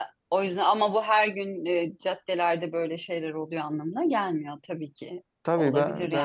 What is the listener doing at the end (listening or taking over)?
taking over